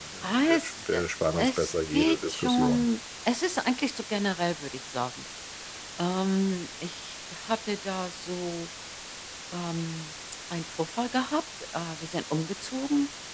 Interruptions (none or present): present